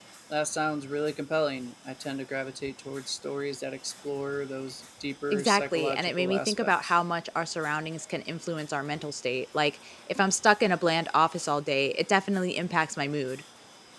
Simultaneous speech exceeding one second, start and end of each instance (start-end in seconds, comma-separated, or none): 5.3-7.0